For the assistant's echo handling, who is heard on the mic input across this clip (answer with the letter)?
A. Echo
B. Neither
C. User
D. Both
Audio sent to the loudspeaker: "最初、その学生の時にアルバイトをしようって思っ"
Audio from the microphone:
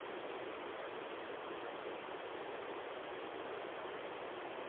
B